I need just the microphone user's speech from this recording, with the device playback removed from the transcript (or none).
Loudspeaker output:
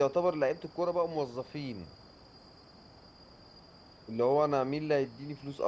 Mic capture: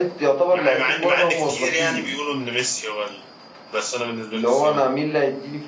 مع مع إن مع إن كتير يعني بيقولوا إن ميسي هو ال... بس أنا بالنسبة لي كريستيانو رونالدو